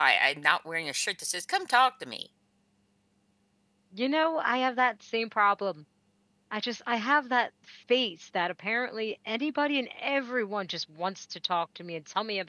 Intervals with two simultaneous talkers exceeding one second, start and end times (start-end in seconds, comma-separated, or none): none